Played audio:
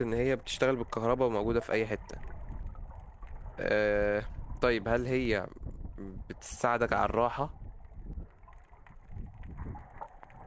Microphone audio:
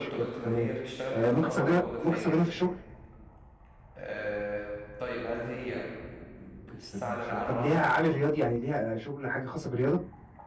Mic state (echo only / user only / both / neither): both